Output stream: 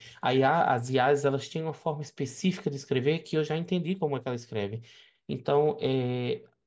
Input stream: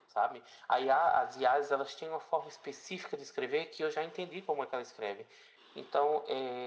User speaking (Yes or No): No